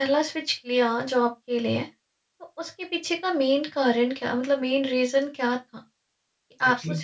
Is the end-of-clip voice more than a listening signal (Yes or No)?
No